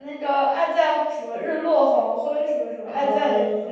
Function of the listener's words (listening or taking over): taking over